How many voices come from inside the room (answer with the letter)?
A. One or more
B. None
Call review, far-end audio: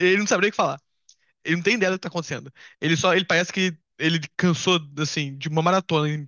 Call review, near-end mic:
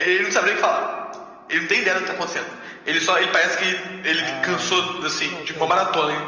A